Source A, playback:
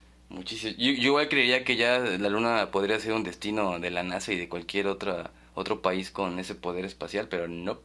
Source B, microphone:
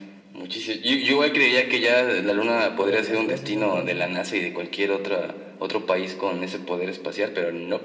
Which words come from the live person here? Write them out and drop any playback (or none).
solo tres veces entonces.